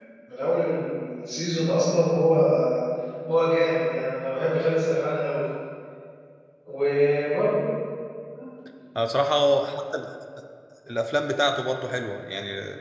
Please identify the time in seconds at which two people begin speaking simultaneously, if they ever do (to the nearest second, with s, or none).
none